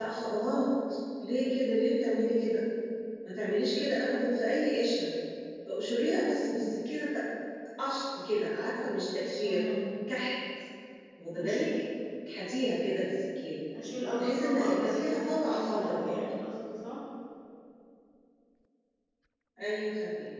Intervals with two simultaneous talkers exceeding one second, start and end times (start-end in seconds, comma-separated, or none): 14.2-16.2